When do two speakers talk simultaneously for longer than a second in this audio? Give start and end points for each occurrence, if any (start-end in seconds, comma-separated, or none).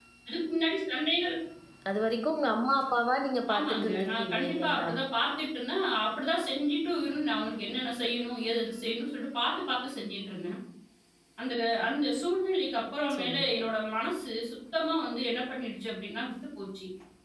3.5-4.9